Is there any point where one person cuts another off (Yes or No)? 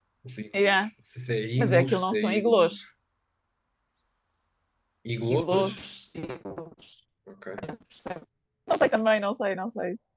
Yes